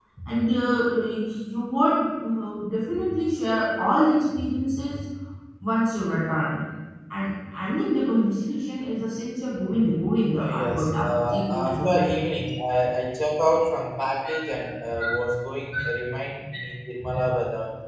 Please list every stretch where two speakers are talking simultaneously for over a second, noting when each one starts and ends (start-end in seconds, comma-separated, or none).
10.4-12.3